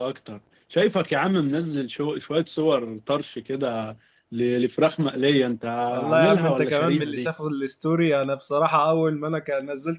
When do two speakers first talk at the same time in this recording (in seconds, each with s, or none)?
6.1 s